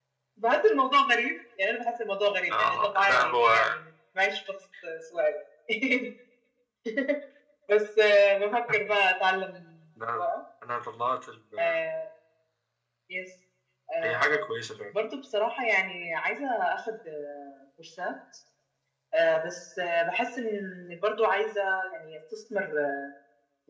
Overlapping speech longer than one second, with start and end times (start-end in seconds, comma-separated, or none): 2.5-3.8